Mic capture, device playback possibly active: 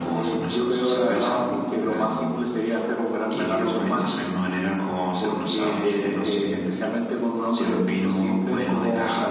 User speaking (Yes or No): No